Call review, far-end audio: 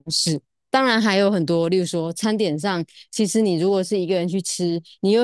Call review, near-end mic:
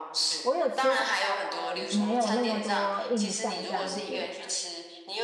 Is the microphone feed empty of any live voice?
No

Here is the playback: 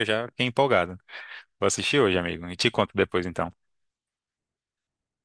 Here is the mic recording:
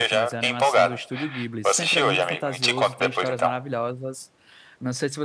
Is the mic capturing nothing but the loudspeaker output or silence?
No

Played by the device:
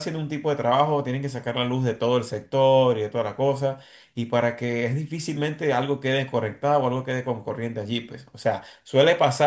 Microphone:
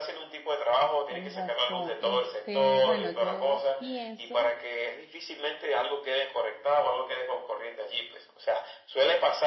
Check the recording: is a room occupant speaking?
Yes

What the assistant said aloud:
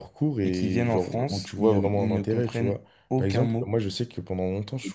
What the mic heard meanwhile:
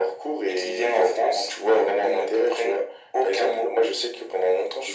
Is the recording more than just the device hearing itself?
No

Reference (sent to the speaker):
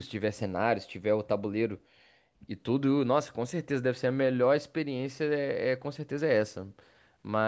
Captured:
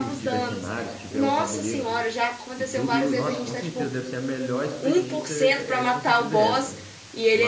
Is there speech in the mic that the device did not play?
Yes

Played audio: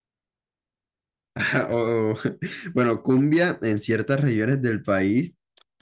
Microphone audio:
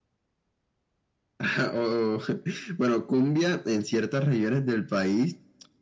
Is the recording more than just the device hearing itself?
No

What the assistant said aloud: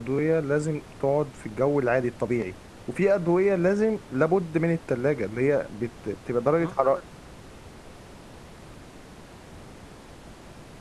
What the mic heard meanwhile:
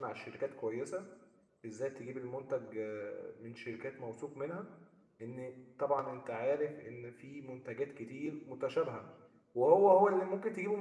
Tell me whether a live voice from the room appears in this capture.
Yes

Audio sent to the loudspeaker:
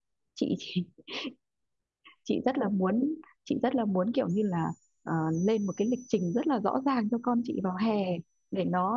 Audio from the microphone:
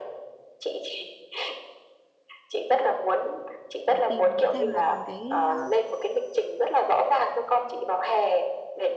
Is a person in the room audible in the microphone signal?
Yes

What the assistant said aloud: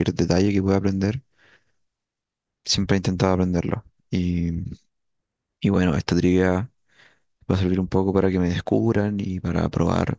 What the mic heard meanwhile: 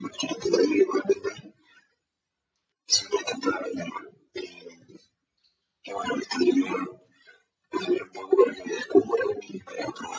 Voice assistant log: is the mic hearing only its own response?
Yes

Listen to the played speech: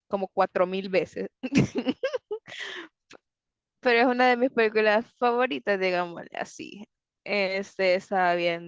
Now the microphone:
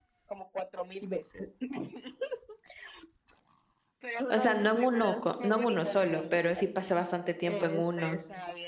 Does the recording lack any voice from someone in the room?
No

